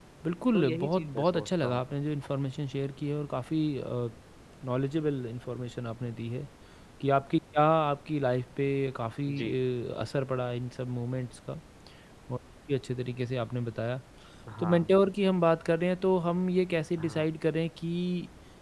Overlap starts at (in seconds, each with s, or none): 0.5 s